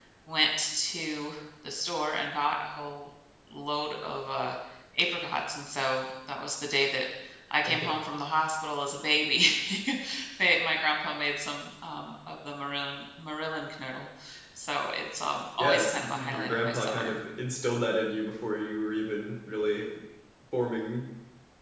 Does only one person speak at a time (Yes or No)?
No